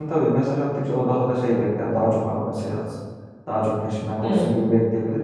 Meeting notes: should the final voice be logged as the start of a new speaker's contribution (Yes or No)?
No